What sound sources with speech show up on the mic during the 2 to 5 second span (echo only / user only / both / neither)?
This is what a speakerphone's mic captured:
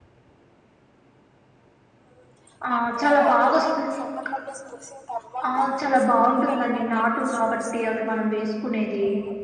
both